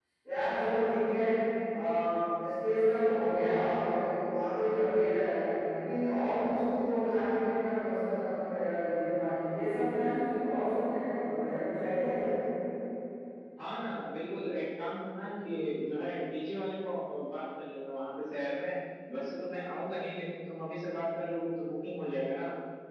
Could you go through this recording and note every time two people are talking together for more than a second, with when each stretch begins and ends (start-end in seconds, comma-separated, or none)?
none